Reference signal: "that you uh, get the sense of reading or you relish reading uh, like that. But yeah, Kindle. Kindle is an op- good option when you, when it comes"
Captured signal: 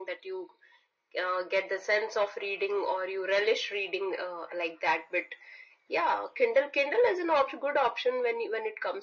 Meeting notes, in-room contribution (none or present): none